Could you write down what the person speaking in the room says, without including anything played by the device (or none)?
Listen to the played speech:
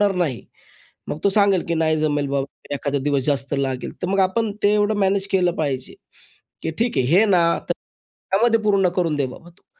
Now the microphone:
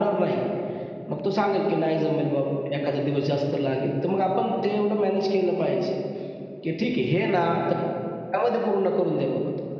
none